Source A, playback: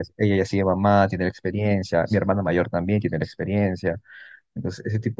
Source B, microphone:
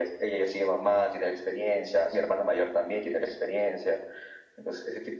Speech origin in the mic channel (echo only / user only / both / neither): echo only